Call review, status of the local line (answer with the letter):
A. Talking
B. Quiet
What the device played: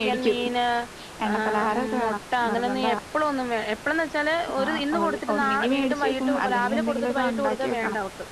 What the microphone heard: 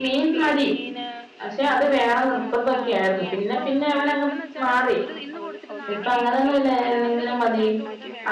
A